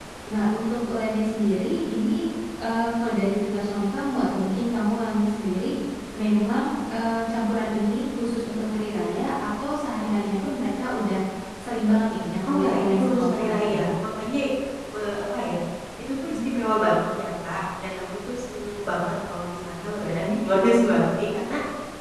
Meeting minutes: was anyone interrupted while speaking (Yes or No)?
Yes